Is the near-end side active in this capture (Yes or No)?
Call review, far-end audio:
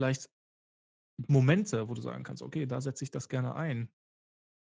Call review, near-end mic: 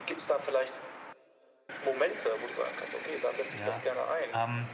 Yes